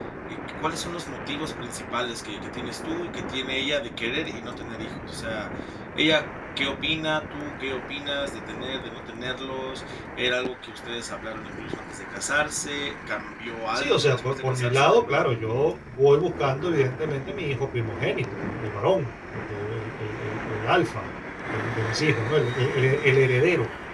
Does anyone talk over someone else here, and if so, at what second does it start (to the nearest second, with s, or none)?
14 s